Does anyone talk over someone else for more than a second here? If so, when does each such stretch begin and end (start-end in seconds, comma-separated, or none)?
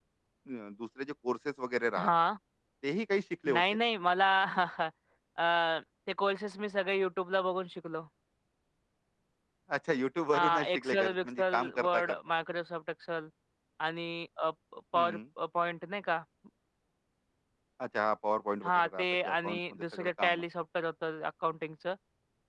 10.3-12.2, 18.6-20.4